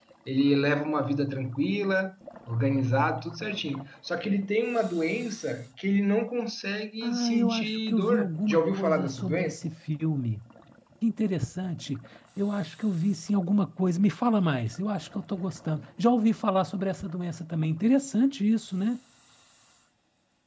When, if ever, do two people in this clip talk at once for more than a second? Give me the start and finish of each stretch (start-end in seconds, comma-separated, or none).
7.0-9.7